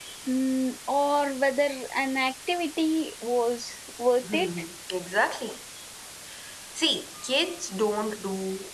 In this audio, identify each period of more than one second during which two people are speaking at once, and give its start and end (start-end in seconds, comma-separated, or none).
none